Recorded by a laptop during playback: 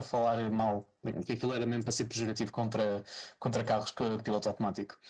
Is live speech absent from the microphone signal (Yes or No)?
Yes